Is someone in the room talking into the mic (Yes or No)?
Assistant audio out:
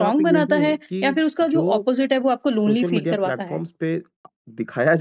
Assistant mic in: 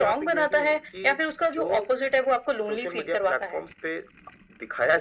No